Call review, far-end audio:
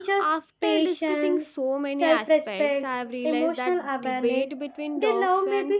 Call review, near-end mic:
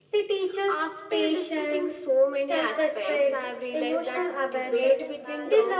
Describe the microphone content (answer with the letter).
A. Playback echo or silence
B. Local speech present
B